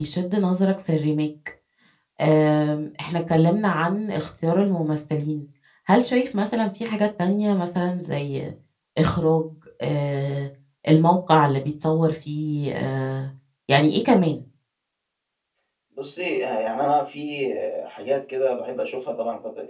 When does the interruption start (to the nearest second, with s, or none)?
none